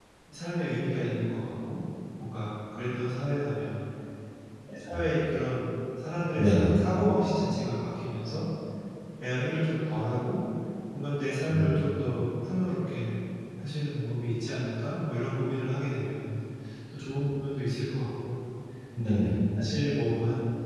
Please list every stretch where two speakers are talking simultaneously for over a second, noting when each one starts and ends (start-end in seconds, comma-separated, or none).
none